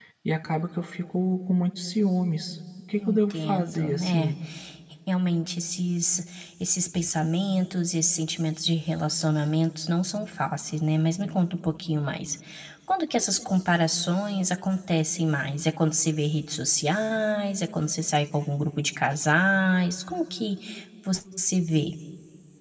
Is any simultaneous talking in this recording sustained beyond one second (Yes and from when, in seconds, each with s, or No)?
Yes, from 3.0 s